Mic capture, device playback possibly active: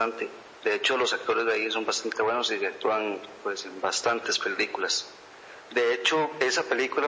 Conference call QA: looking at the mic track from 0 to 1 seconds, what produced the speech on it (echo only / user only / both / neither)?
echo only